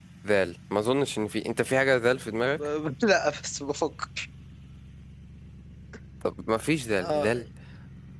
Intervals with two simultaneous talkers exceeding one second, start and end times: none

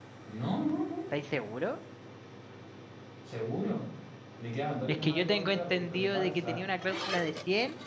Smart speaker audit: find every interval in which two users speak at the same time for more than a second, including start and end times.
4.9-6.6

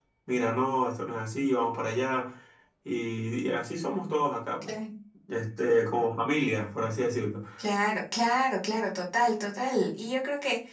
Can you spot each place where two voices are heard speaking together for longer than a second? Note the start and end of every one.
none

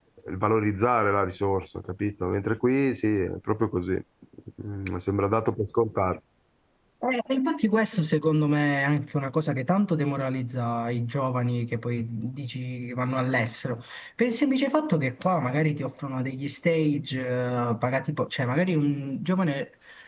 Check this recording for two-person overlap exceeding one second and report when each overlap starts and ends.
none

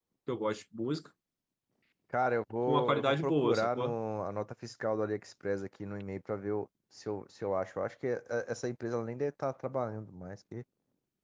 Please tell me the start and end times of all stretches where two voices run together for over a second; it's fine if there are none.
2.6-3.9

